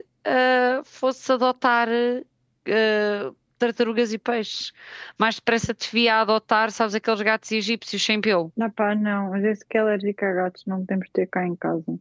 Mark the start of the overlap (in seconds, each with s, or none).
none